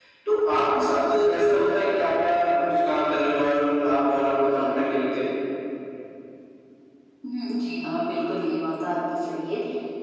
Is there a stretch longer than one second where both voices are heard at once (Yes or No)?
No